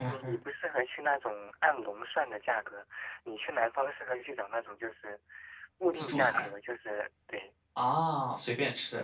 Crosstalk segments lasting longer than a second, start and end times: none

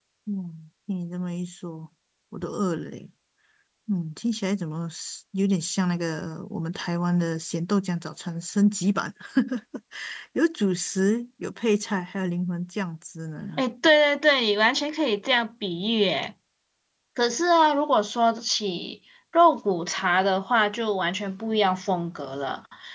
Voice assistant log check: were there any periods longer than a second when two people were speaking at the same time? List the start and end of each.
none

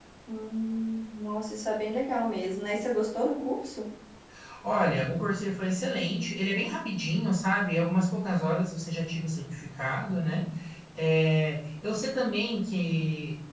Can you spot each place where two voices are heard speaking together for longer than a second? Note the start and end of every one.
none

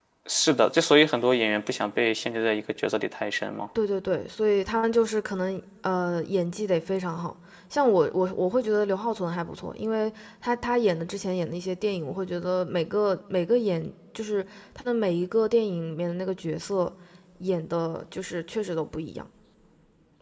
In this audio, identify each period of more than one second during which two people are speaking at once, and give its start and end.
none

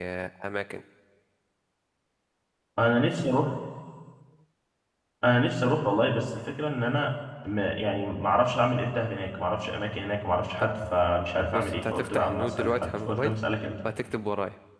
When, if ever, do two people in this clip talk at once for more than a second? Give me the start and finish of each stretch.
11.5-13.3

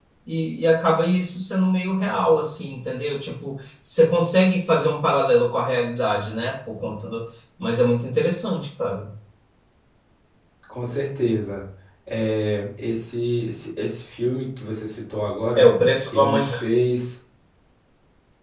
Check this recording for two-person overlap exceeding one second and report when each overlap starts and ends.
none

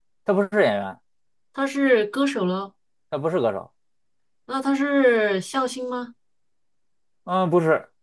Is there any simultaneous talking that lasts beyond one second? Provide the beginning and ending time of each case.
none

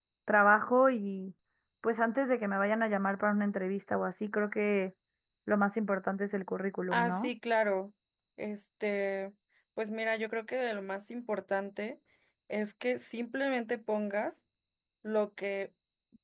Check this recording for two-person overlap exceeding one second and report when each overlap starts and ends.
none

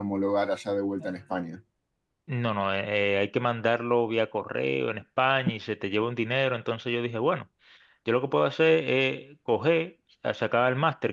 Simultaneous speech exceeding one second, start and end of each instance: none

